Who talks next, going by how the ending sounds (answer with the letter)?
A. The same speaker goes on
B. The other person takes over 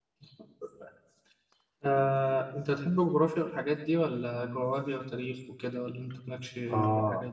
B